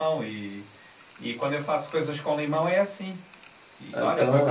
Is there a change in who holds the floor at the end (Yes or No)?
No